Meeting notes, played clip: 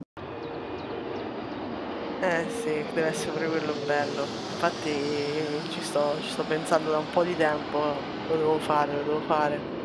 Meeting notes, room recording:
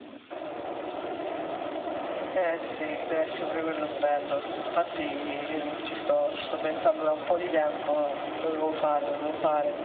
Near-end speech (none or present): none